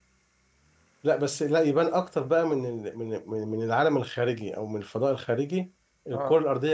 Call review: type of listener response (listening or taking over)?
listening